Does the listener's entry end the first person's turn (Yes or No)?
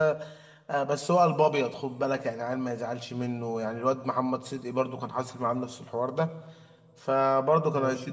No